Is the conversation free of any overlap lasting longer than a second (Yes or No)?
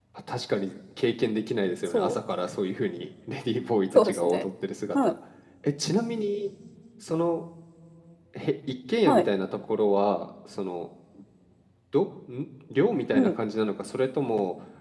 Yes